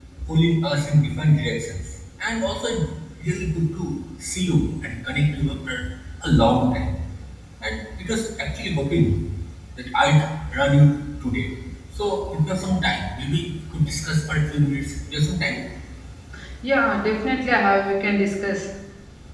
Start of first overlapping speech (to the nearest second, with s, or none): none